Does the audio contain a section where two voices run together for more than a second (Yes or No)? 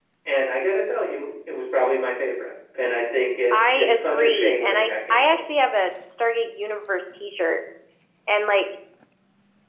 Yes